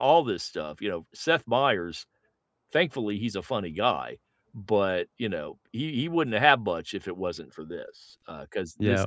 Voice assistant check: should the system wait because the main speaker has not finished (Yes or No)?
No